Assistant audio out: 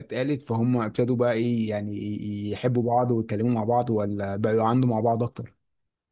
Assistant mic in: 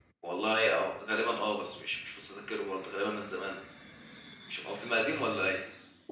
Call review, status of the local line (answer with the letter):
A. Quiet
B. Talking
B